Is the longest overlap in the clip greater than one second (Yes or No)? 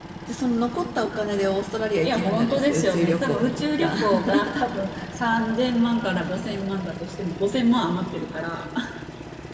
Yes